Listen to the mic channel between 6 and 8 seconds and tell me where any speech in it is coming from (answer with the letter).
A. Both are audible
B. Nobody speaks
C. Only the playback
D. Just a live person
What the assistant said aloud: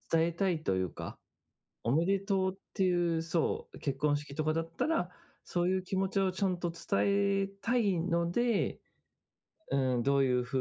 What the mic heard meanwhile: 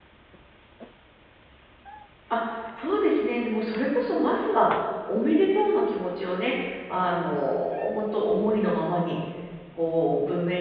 D